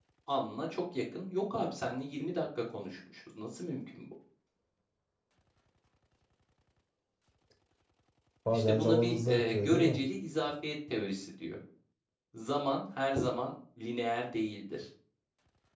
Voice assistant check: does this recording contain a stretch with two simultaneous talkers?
Yes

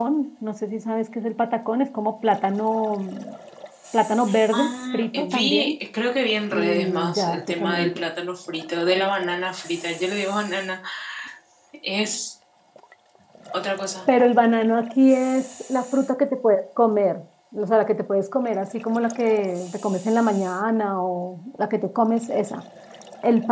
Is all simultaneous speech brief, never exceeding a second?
No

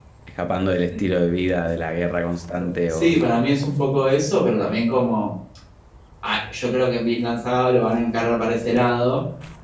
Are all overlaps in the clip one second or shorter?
Yes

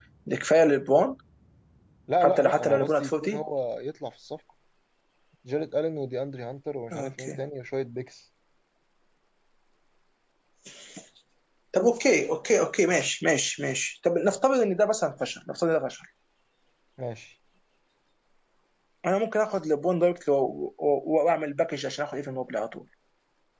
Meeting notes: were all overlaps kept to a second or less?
No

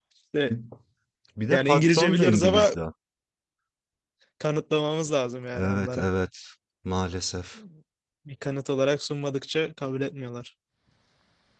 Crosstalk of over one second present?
Yes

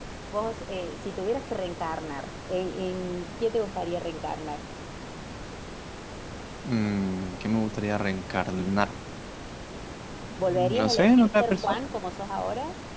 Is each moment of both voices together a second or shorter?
No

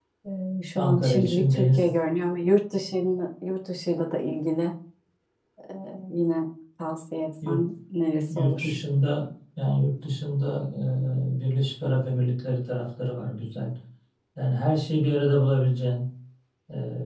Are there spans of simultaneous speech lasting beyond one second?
Yes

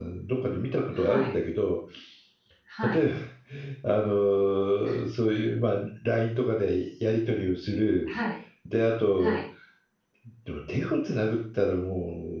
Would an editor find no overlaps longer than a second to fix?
Yes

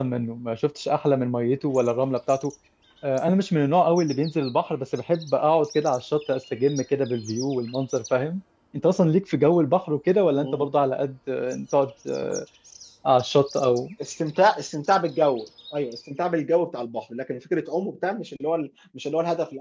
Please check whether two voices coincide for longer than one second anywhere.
No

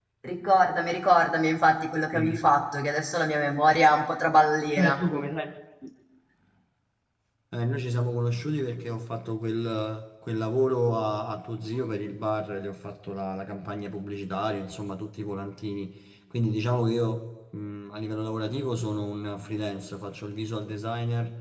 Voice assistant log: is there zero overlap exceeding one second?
Yes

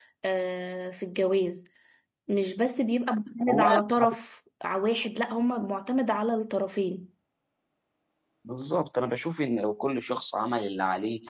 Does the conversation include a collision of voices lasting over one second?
No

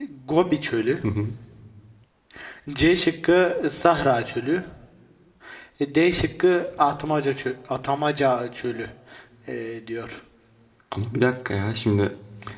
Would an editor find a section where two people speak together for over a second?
No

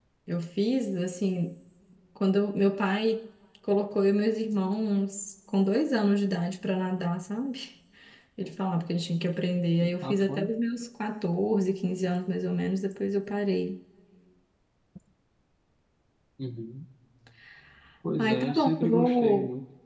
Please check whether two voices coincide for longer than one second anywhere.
Yes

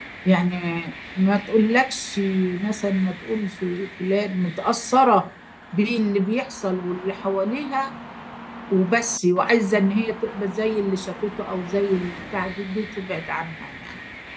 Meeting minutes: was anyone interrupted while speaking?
No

